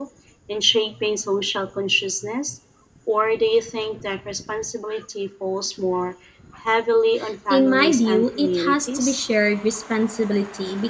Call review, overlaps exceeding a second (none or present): present